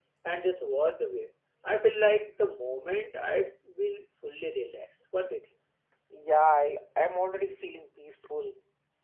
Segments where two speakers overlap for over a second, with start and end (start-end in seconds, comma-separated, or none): none